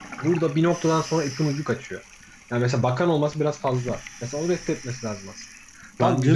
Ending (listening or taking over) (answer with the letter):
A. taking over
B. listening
B